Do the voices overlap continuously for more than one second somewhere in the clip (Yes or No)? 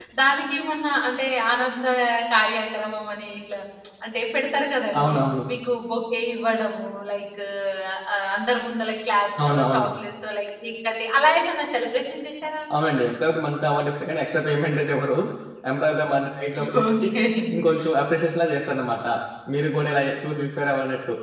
No